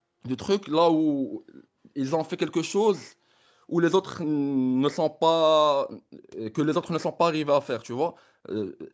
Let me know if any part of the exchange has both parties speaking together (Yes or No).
No